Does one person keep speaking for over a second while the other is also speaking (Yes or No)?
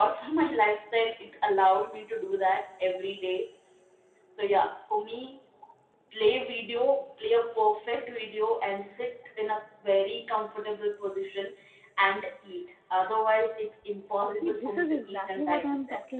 Yes